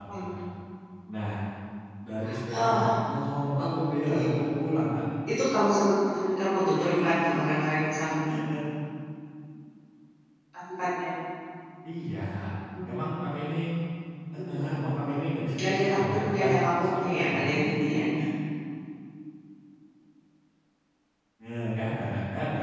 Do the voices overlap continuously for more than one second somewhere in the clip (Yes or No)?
Yes